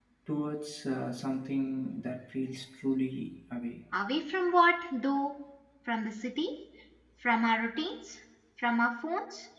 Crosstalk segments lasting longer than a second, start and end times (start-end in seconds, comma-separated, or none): none